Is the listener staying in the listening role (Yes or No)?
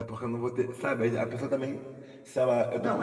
Yes